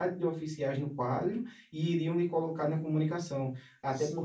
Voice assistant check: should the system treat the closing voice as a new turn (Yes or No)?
No